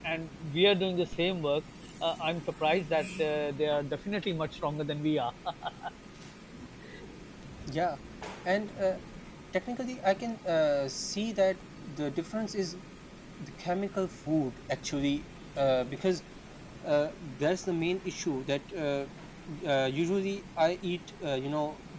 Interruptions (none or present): none